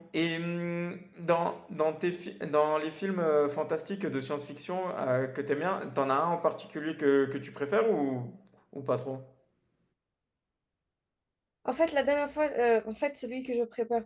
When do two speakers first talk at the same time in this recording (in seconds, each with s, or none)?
none